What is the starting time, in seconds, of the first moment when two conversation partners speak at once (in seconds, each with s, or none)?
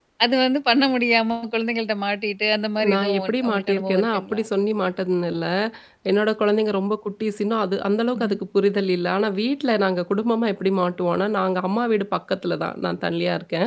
2.8 s